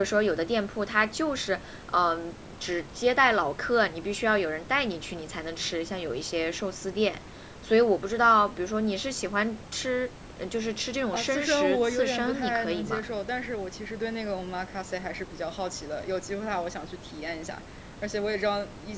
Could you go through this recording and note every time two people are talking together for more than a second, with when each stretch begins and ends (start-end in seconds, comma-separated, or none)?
11.1-13.0